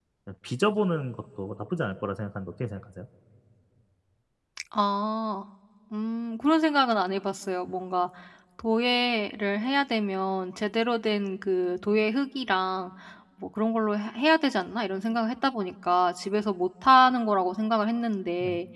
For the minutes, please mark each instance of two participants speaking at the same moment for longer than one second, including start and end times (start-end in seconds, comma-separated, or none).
none